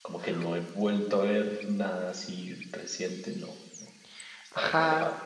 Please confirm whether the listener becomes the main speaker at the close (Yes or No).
Yes